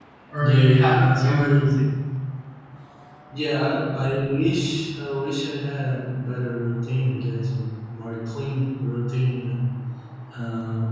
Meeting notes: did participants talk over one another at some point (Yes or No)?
Yes